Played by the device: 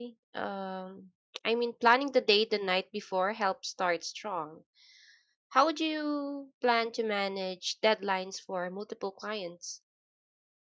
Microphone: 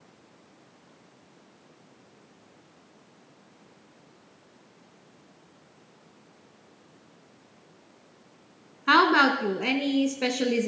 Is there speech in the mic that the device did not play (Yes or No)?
Yes